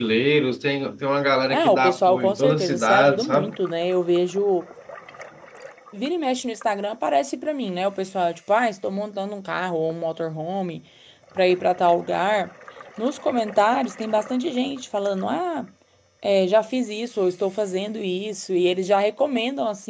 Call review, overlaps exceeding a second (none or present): present